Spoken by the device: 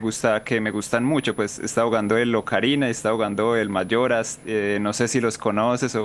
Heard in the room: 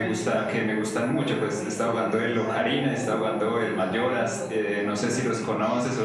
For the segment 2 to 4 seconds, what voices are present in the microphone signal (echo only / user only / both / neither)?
both